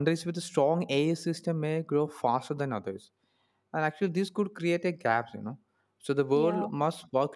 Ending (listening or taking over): listening